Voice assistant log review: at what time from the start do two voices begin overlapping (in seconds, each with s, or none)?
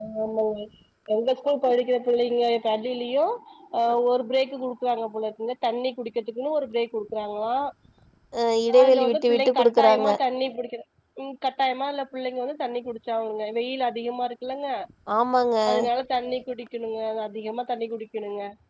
8.8 s